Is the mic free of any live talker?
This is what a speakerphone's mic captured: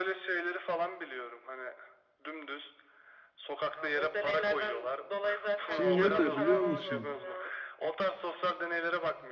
No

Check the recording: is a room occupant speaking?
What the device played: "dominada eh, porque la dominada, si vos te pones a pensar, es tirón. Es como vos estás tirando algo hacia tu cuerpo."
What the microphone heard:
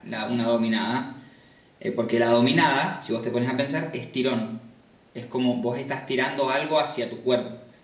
No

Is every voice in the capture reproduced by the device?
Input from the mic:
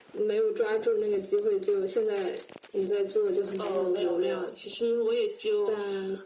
Yes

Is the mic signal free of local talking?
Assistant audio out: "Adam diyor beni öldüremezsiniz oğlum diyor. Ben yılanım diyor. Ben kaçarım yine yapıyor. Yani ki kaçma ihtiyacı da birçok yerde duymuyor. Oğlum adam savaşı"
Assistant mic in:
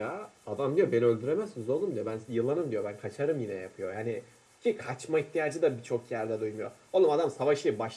Yes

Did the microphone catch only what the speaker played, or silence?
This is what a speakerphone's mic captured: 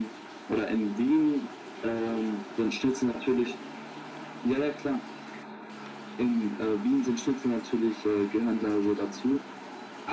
Yes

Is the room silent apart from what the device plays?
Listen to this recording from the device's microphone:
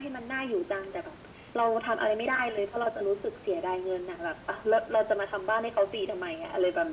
Yes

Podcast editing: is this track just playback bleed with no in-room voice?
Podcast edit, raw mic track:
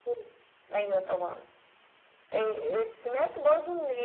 No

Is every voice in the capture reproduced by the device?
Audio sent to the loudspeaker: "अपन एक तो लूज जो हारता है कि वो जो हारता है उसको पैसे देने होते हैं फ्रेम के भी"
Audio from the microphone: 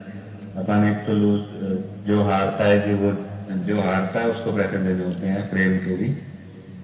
Yes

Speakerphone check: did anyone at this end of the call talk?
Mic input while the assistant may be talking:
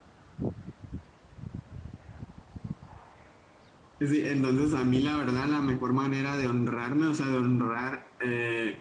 Yes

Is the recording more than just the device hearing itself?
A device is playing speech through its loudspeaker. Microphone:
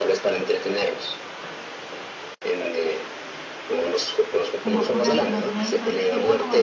Yes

